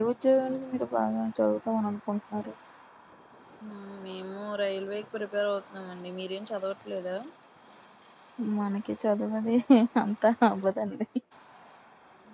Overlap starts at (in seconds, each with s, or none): none